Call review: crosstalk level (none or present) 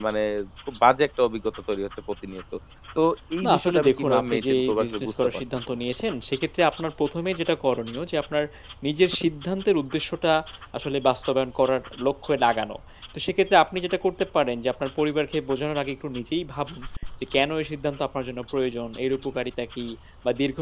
present